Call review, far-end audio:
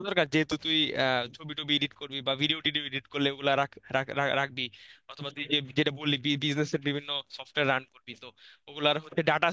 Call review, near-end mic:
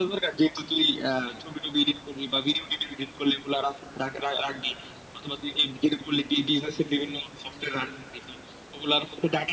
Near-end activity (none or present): none